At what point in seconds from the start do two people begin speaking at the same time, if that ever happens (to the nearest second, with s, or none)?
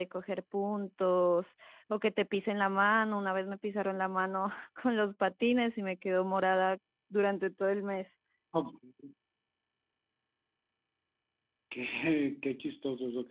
none